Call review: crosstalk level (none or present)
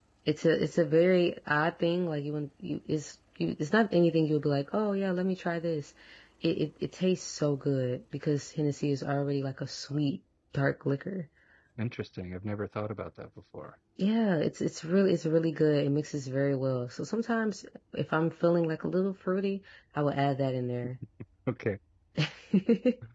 none